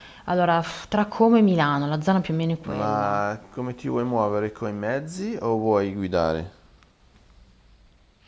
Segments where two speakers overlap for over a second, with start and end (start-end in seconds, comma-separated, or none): none